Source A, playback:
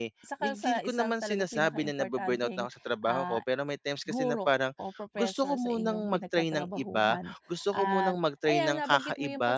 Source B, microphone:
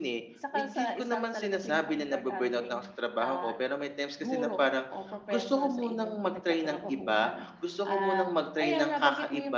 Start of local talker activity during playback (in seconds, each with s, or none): none